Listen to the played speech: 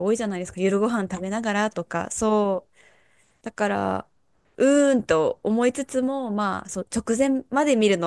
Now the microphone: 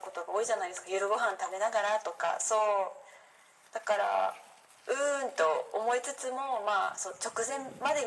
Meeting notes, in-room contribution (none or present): none